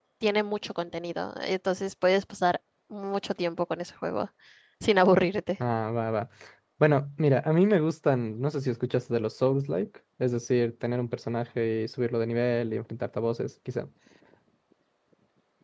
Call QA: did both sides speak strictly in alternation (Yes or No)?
Yes